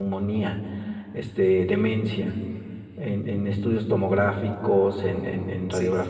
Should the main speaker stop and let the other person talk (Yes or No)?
No